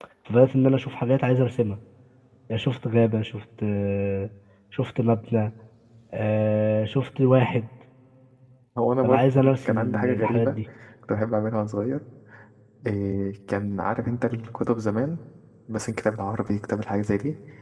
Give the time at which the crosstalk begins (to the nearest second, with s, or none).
9 s